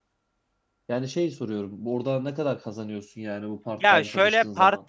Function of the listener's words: taking over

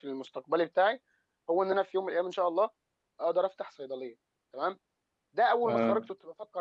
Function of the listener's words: listening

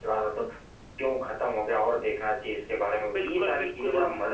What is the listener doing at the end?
taking over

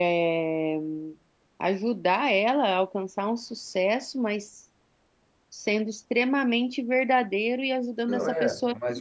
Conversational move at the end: taking over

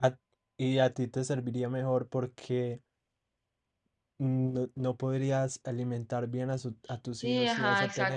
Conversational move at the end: taking over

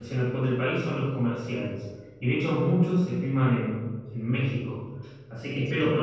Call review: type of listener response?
listening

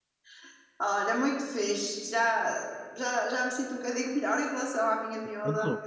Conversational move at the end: listening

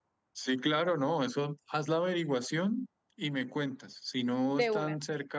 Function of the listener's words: listening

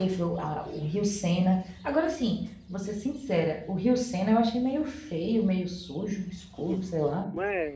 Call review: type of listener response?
taking over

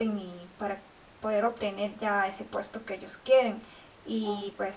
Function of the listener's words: listening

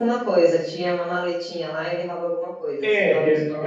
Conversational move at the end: taking over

